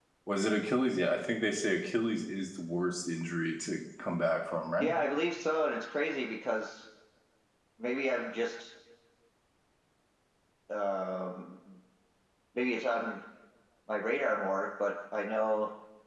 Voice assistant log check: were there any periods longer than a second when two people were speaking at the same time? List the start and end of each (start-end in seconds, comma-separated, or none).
none